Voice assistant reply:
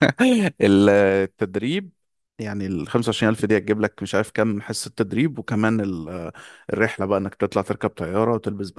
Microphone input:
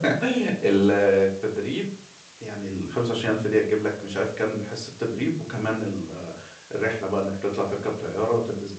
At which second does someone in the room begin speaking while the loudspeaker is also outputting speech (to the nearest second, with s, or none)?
none